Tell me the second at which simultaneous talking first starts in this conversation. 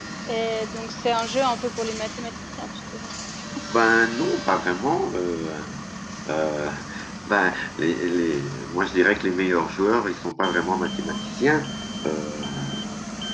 none

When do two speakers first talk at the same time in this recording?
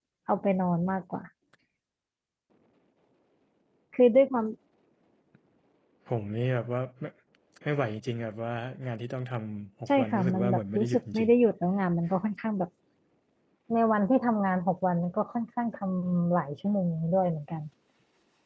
9.9 s

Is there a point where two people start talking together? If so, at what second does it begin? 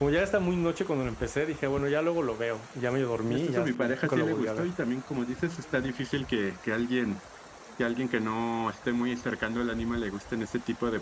3.3 s

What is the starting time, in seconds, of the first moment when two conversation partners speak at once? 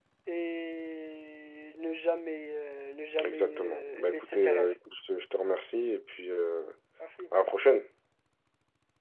3.2 s

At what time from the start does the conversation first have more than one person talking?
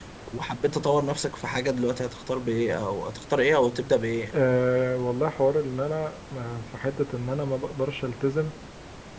none

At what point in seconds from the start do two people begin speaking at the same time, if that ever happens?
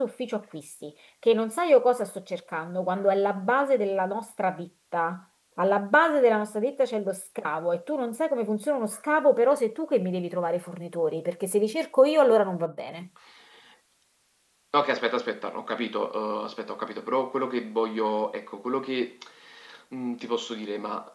none

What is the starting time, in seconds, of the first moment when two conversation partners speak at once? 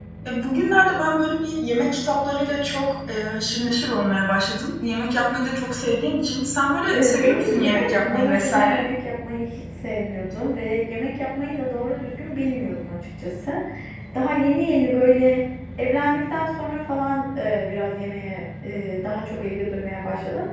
6.9 s

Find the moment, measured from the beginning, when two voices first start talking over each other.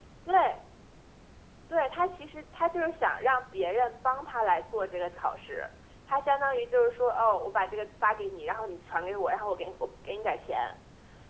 none

